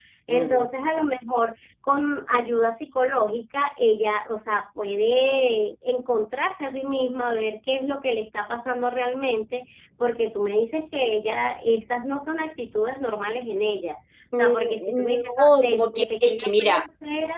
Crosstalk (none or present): present